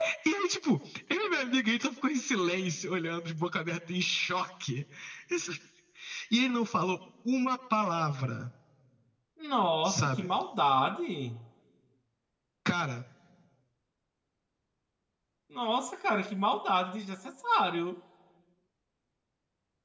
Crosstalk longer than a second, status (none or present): none